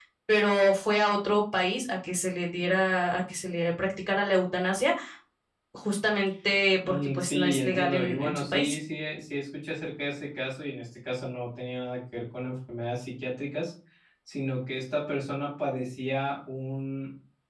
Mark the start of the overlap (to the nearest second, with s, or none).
7 s